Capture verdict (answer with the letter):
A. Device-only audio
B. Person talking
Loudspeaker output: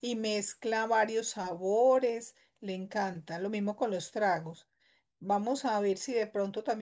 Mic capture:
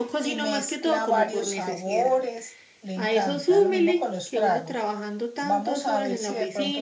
B